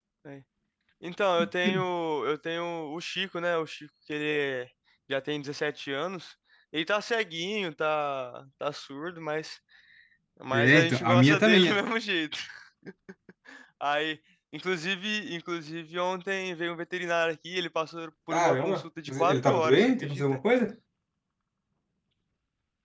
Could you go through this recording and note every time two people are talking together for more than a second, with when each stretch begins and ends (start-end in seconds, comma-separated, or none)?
10.5-11.8, 18.3-20.4